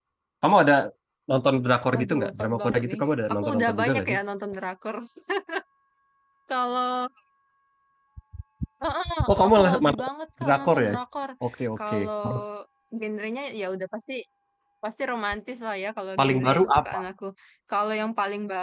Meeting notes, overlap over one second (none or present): present